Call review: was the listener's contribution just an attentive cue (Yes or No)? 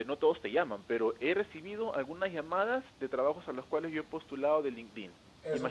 No